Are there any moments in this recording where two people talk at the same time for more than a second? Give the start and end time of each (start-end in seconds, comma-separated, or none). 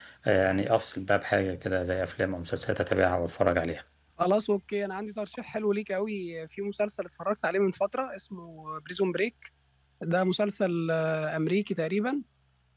none